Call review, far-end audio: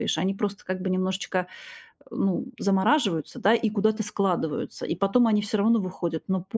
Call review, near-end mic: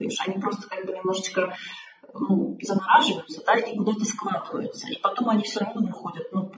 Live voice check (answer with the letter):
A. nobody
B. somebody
A